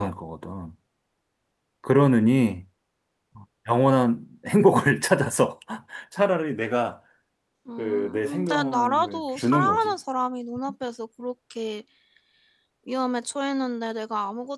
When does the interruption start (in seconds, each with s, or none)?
7.8 s